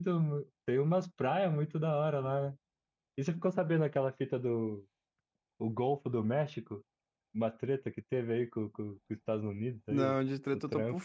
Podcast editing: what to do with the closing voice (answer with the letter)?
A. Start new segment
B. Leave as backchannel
A